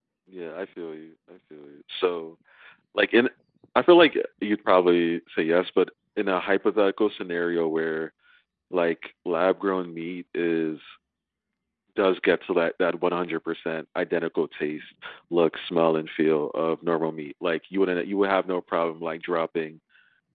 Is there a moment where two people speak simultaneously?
No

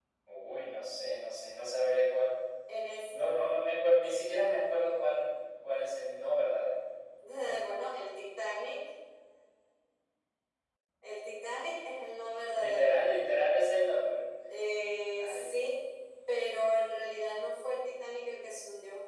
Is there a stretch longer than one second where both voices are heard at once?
No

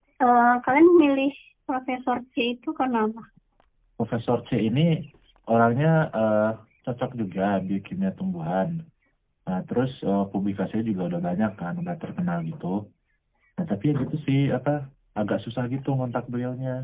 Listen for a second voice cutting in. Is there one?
No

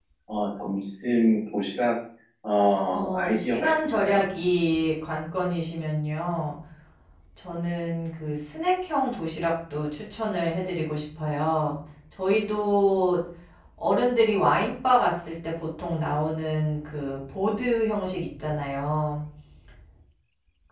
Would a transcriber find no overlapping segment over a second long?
No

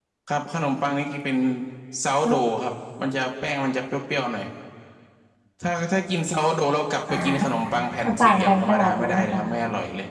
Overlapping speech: Yes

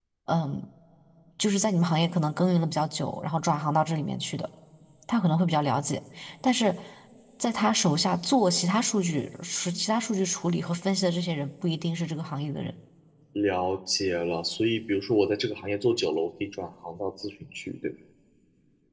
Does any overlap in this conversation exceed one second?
No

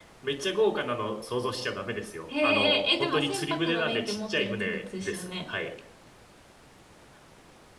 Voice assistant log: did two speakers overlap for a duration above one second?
Yes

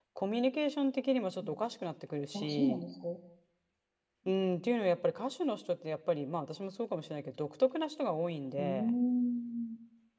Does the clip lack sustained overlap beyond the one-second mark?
Yes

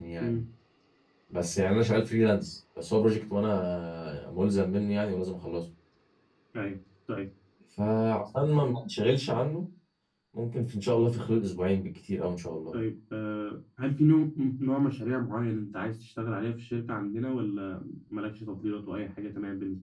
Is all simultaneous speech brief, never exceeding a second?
Yes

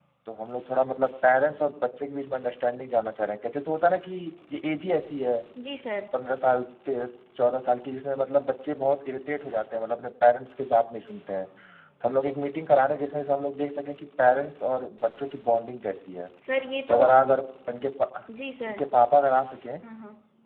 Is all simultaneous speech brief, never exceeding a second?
Yes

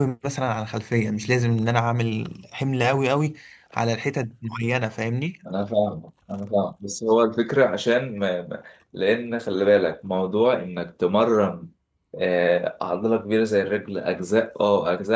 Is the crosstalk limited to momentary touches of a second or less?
Yes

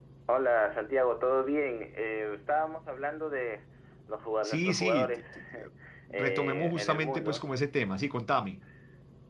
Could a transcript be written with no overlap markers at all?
No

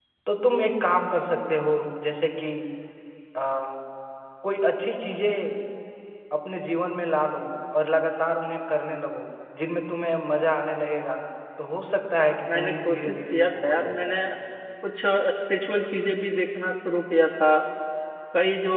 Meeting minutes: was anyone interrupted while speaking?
Yes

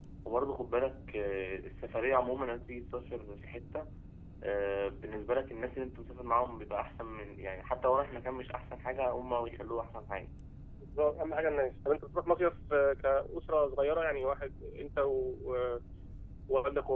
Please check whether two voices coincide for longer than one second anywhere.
No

